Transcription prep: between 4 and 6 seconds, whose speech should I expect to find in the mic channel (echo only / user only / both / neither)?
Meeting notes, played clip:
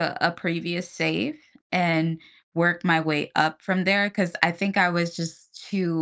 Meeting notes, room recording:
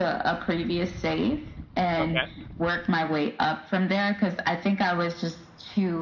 echo only